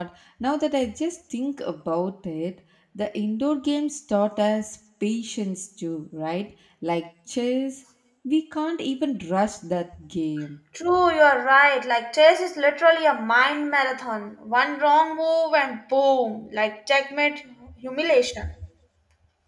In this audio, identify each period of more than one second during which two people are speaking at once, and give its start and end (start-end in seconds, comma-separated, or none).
none